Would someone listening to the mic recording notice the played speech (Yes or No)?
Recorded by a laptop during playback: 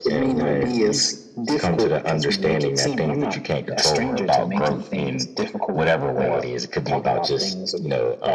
Yes